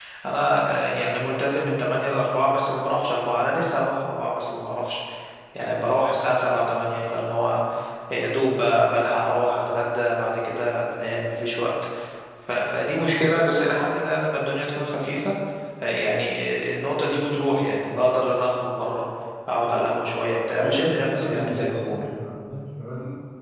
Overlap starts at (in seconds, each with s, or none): 20.6 s